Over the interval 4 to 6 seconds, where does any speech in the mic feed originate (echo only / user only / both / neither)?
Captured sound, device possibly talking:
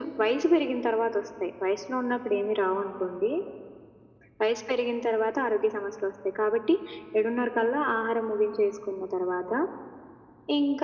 echo only